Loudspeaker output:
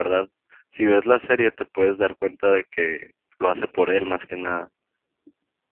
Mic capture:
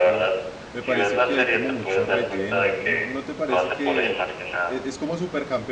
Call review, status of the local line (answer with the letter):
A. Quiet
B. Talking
B